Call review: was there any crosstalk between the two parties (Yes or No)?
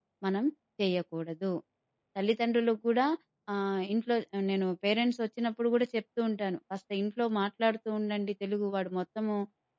No